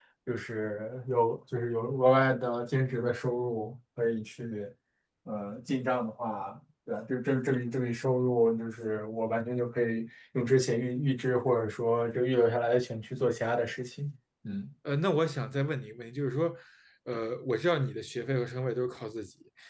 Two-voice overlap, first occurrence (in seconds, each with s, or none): none